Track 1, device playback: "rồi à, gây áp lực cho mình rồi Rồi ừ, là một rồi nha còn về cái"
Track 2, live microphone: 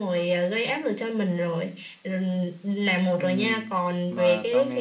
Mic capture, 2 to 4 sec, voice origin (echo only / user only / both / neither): both